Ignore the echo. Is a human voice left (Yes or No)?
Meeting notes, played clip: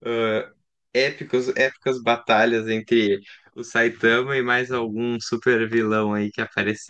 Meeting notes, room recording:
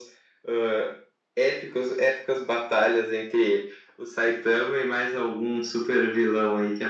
No